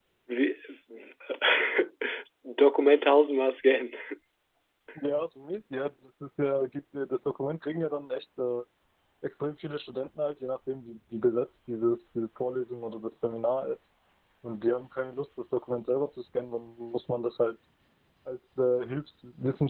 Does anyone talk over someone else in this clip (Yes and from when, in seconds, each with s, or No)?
No